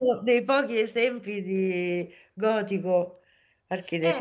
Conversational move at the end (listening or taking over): taking over